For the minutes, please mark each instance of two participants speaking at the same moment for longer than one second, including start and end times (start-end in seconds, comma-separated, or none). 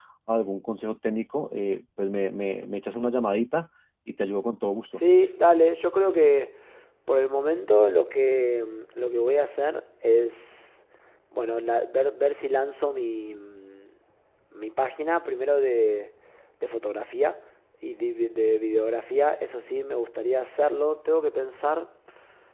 none